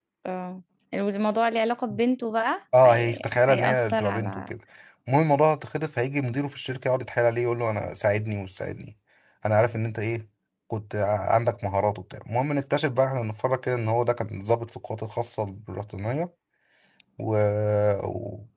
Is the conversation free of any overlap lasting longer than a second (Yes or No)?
No